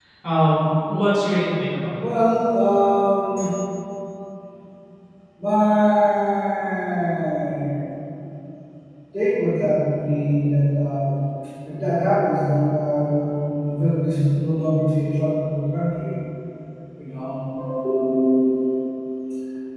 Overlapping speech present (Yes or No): No